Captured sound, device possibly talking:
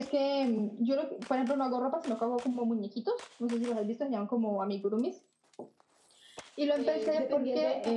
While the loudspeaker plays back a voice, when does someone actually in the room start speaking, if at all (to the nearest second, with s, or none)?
7 s